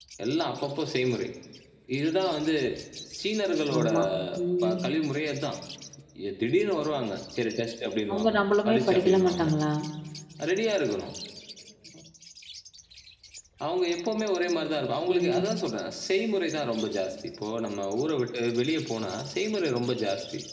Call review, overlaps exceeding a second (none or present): present